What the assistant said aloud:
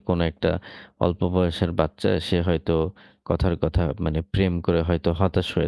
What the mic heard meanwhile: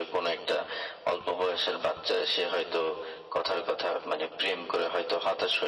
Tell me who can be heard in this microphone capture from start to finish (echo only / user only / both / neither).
echo only